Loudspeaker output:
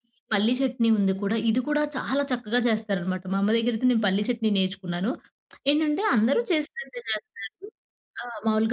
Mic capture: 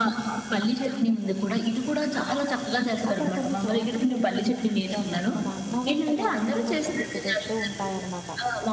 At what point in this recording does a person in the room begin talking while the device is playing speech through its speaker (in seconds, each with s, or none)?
3.1 s